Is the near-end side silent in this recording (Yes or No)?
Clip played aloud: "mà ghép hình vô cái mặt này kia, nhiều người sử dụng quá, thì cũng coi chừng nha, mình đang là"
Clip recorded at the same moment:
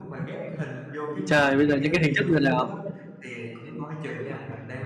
No